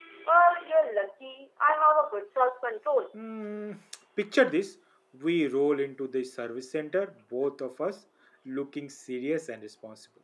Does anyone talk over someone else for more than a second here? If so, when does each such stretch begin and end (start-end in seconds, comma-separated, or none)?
none